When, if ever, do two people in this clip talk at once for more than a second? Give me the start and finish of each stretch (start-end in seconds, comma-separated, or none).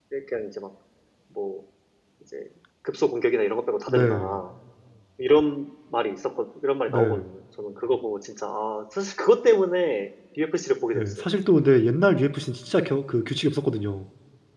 none